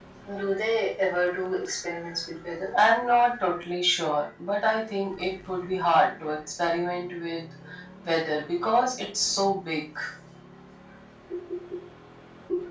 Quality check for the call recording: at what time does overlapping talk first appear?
none

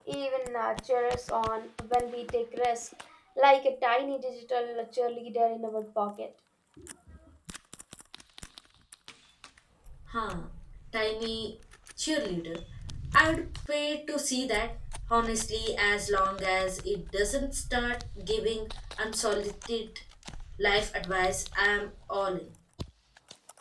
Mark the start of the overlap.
none

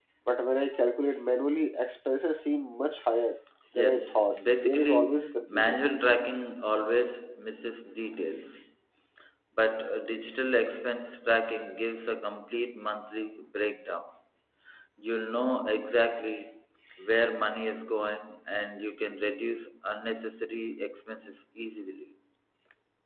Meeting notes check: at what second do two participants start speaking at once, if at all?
3.7 s

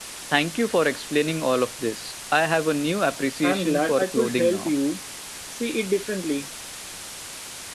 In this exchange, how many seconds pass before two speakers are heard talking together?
3.4 s

